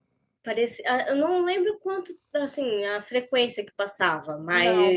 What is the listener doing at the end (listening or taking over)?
listening